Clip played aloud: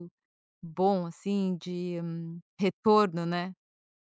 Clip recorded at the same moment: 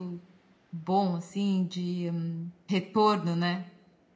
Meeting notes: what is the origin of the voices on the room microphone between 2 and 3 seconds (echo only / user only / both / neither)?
echo only